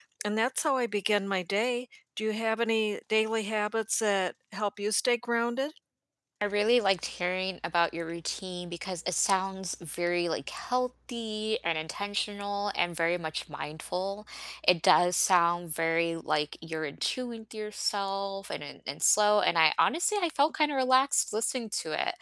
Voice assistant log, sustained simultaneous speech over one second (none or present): none